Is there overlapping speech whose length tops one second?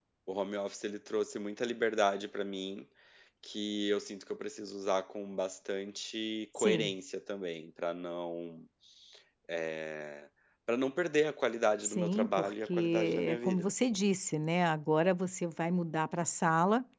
Yes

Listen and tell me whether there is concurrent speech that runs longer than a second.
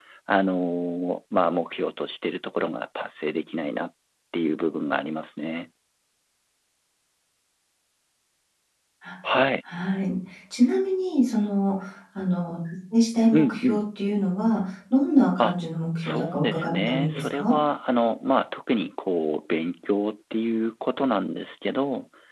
Yes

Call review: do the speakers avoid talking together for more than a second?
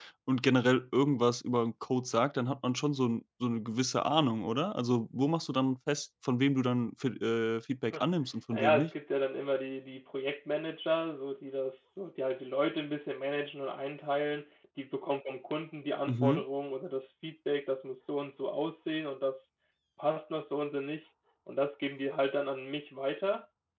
Yes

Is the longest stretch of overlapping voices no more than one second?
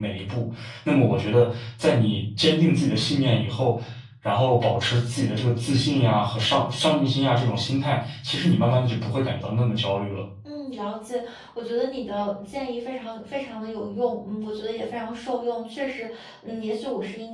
Yes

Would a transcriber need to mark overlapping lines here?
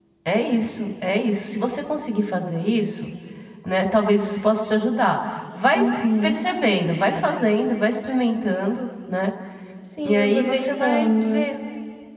Yes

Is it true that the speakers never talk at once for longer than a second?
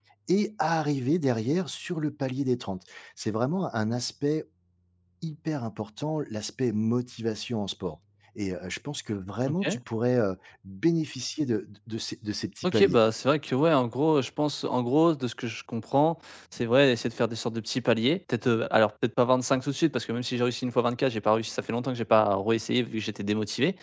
Yes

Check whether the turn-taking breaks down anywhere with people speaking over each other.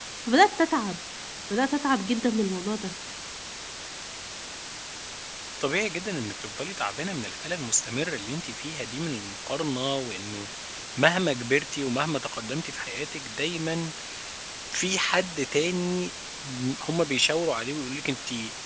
No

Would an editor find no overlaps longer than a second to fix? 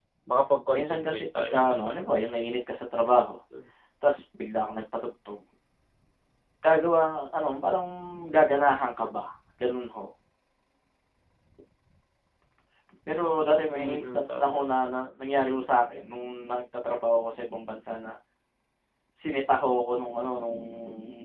No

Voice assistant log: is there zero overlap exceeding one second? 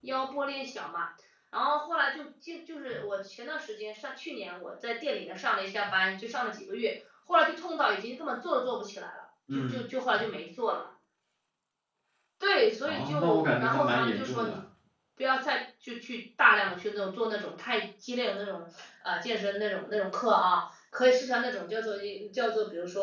No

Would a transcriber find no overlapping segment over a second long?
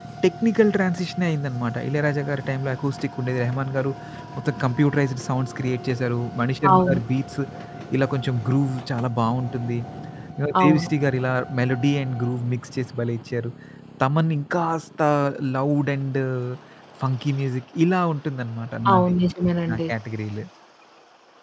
Yes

